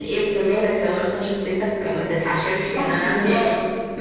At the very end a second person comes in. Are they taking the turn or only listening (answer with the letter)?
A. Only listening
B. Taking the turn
B